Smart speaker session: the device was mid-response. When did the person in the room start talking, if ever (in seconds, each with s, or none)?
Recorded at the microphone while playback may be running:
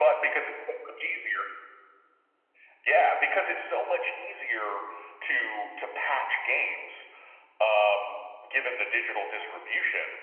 none